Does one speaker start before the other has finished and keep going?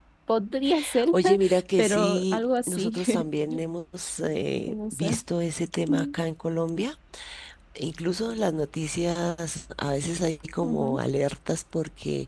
Yes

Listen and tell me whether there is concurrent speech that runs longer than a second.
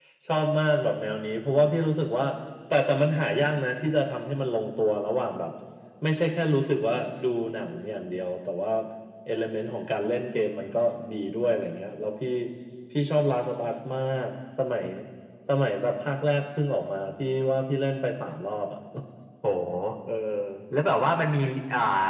No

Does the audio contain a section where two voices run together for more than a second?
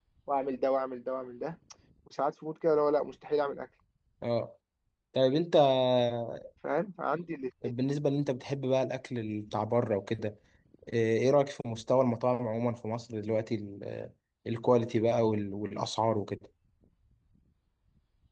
No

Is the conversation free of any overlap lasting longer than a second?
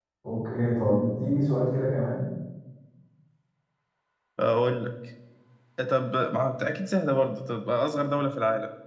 Yes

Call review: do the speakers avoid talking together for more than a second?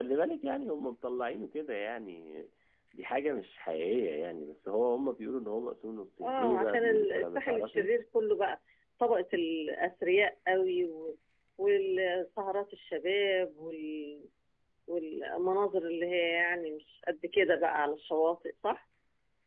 No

